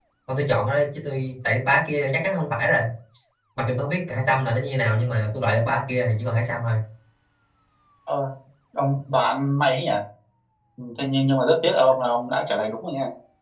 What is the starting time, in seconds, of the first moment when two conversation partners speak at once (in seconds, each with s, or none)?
none